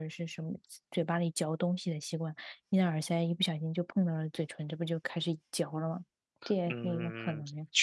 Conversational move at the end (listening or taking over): taking over